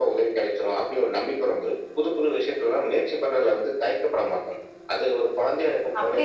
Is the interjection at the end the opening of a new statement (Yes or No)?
Yes